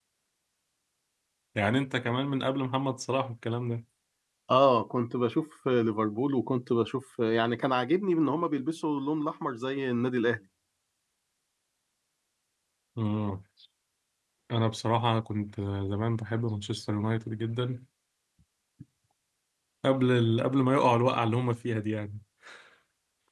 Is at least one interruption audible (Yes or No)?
No